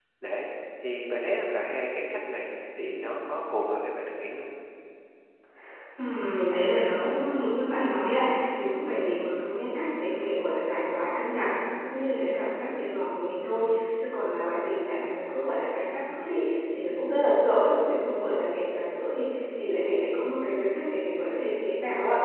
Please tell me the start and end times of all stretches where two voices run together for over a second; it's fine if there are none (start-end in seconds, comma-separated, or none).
none